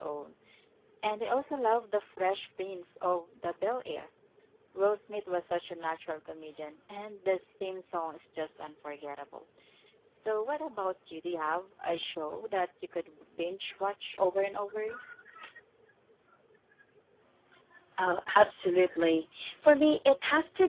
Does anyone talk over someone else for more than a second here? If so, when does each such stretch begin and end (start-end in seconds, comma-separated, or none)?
none